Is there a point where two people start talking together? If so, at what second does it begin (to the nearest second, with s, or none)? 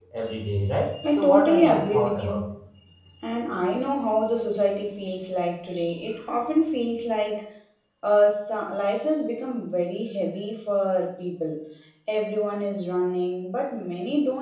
1 s